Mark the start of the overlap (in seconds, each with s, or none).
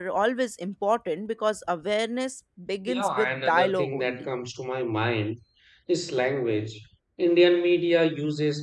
2.9 s